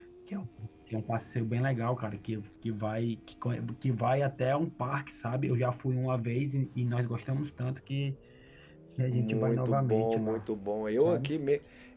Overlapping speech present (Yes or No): Yes